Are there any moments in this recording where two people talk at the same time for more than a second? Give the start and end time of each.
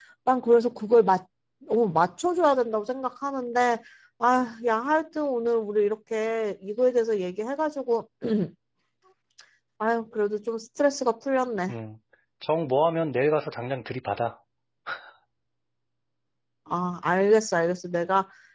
none

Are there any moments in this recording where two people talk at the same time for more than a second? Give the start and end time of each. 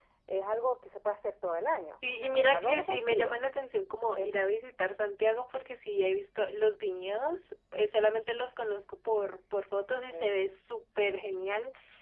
2.0-3.4

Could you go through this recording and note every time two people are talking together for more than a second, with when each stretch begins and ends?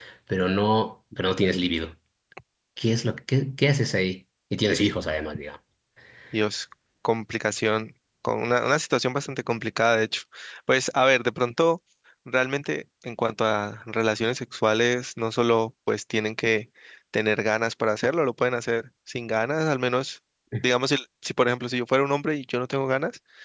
none

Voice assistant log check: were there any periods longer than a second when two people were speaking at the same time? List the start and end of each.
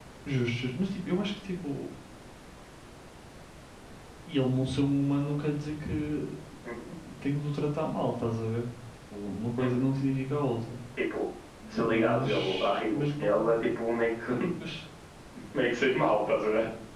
11.9-13.6

